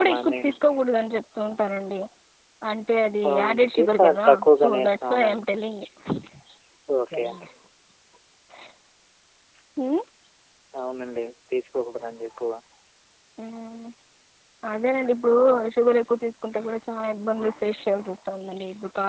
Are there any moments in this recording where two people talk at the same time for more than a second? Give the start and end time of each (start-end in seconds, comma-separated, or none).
3.3-5.4